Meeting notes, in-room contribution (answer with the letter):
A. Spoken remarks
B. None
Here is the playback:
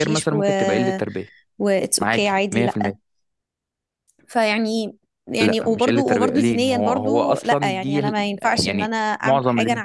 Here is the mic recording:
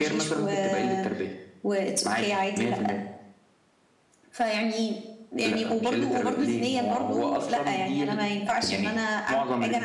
B